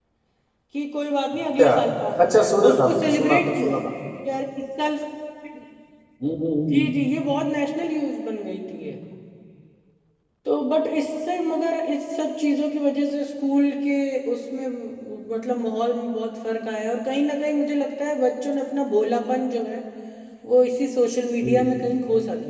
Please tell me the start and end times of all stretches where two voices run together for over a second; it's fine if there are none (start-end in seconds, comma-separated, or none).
2.2-3.8